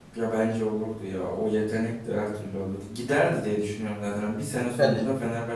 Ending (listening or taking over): listening